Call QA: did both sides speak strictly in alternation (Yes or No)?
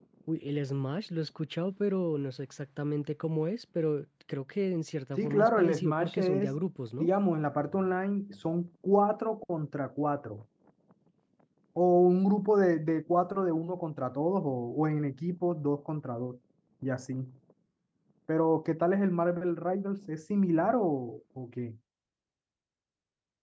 No